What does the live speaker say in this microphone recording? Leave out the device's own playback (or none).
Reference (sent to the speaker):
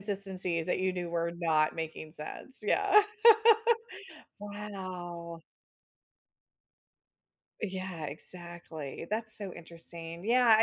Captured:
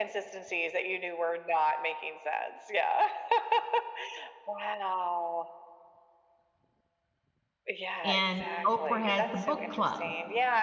and Oprah has the book club,